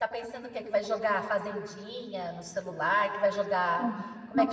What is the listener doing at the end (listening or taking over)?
listening